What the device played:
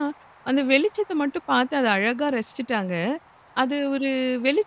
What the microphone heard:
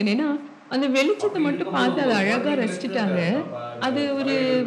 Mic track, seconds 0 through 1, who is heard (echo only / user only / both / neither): echo only